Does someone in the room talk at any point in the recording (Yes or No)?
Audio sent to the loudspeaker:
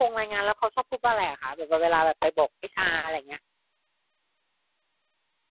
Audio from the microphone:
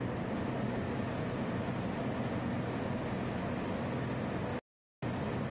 No